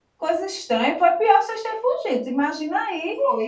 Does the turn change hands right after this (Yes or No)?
No